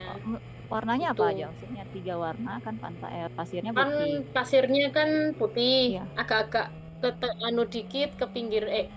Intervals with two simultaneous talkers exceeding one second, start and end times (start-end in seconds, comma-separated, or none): none